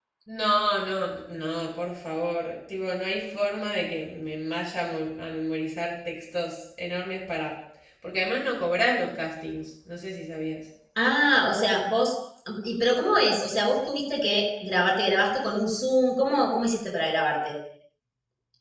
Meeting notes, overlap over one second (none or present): none